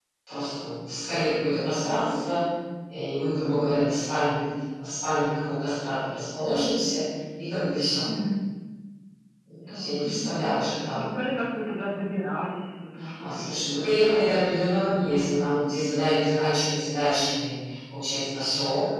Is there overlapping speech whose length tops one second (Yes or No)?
Yes